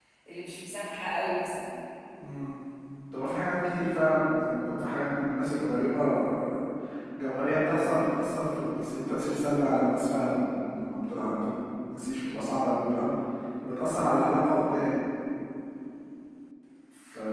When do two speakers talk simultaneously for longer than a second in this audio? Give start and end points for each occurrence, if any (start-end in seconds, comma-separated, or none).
none